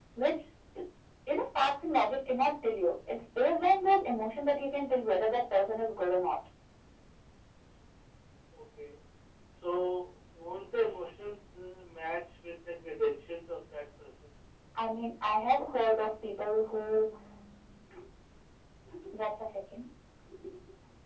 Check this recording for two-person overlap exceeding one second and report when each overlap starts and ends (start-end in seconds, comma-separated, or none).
none